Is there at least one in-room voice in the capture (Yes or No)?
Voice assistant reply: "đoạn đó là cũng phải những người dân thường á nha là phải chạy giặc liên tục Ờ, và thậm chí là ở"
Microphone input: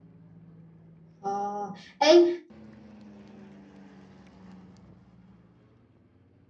Yes